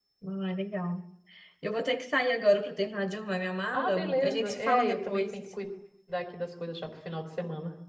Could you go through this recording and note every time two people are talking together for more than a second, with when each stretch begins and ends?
3.7-5.4

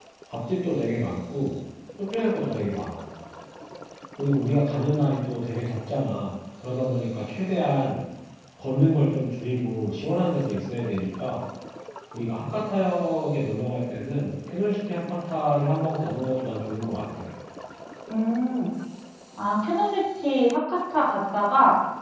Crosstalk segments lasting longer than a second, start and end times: none

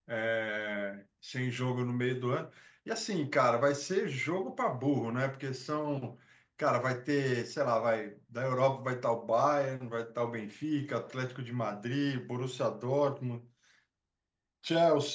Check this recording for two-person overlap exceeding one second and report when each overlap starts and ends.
none

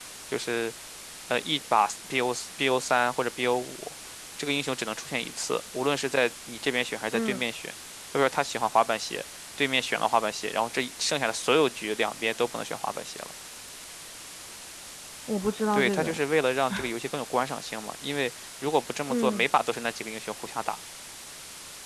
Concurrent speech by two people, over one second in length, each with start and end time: none

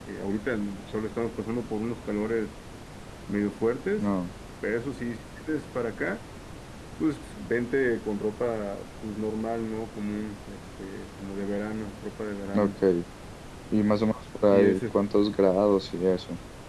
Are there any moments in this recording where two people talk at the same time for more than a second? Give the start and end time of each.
none

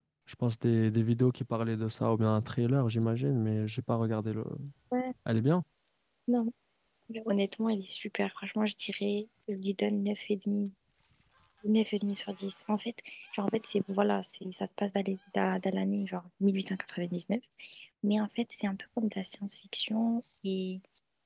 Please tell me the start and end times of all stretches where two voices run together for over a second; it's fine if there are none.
none

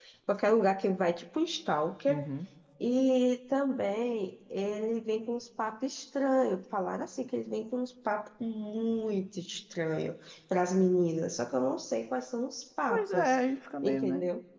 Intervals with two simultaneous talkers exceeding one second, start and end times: none

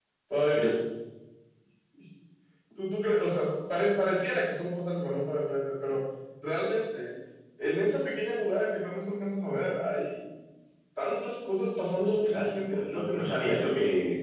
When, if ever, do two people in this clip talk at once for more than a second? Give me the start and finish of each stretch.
12.0-13.5

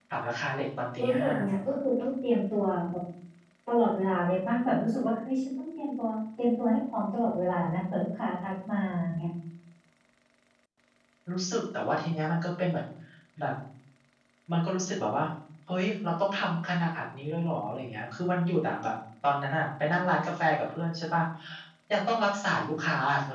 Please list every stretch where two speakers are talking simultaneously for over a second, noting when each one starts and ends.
none

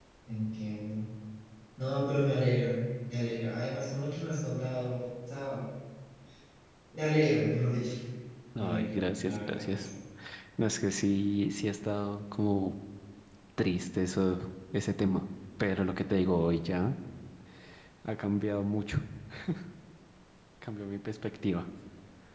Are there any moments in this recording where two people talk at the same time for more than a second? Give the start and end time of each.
8.6-9.9

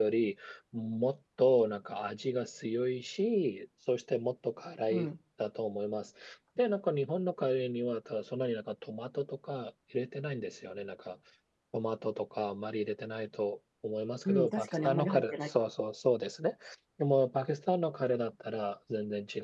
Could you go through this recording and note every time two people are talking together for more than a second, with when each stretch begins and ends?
14.2-15.5

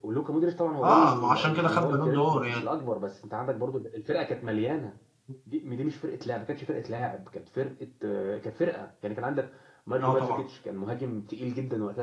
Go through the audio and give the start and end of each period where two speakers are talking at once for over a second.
0.8-2.6

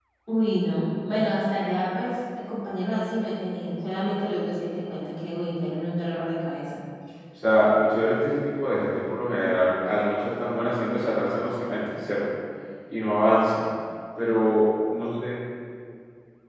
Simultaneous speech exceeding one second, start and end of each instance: none

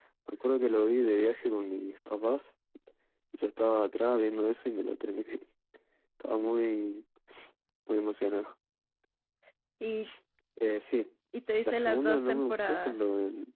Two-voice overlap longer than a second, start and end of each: 11.7-13.0

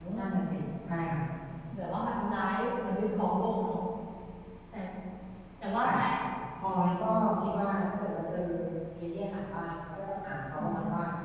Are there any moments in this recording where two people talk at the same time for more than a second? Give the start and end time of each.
none

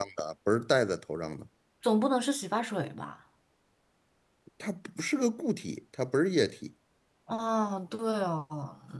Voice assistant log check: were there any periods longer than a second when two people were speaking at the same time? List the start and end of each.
none

